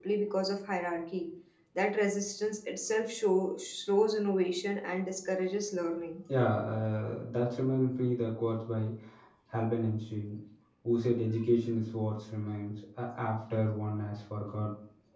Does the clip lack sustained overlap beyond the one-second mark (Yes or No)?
Yes